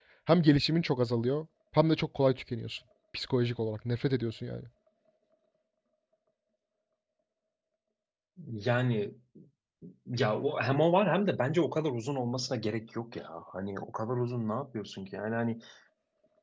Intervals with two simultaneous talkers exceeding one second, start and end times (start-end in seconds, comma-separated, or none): none